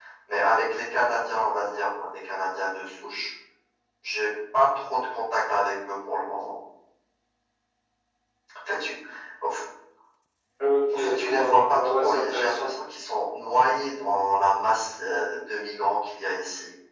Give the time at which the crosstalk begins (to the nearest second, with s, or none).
11 s